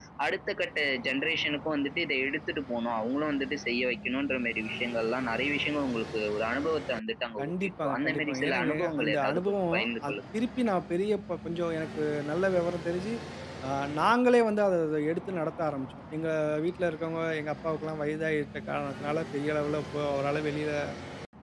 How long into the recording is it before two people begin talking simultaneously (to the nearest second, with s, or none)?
7 s